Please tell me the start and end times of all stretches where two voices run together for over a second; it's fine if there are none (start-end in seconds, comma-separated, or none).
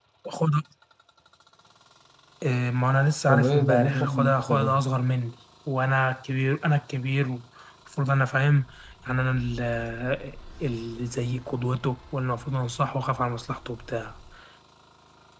3.3-4.8